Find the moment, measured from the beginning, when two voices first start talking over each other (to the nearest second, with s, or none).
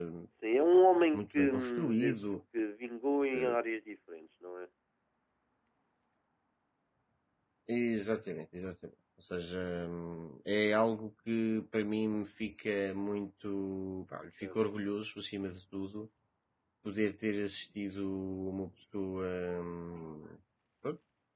1 s